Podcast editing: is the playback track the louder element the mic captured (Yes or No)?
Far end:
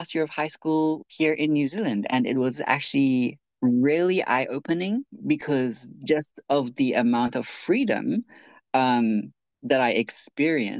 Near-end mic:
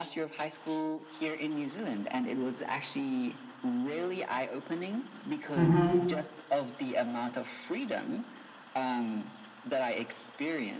No